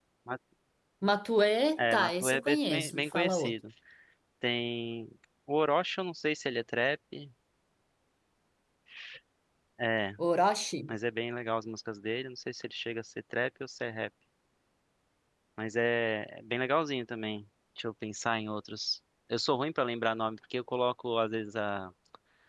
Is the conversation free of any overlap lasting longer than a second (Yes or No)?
No